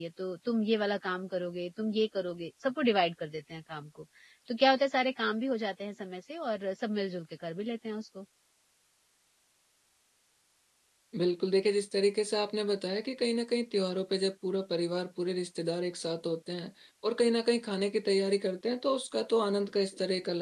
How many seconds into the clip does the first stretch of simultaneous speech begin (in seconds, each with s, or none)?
none